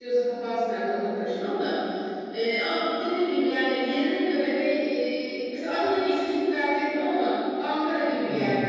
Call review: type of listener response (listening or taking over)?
listening